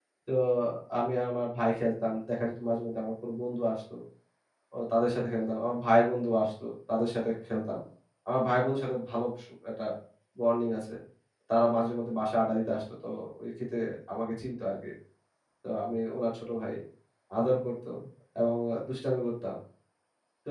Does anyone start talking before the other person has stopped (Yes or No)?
No